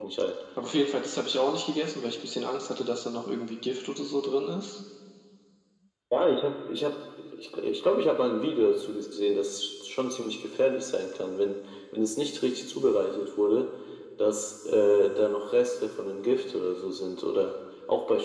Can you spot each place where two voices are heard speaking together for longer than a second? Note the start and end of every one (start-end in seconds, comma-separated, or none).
none